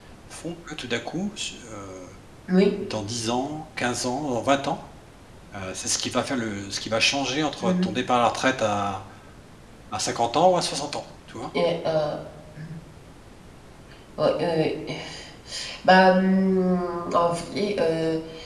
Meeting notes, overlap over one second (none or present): none